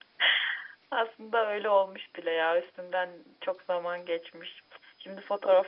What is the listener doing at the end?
listening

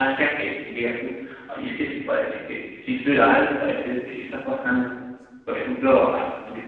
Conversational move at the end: listening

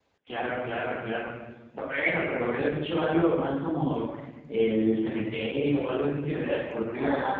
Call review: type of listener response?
taking over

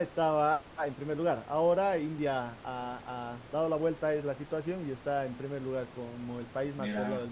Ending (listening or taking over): taking over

